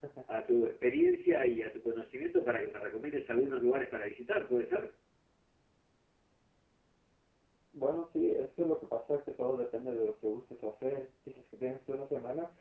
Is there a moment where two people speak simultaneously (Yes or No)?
No